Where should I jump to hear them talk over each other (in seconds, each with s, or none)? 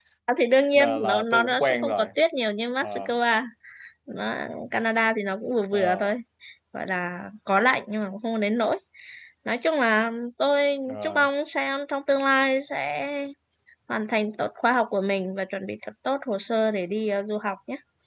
0.8 s